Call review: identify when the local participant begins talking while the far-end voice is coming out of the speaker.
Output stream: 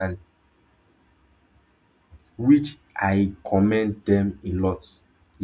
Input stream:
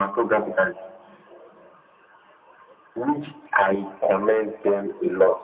none

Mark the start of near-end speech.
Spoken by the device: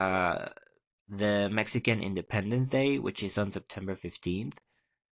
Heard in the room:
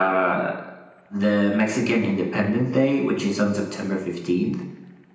none

